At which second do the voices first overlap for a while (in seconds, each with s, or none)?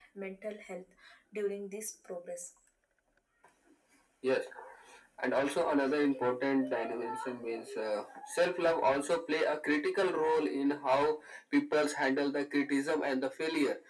none